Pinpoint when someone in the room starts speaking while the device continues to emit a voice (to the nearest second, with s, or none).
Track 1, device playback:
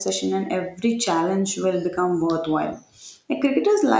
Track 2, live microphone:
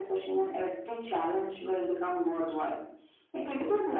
none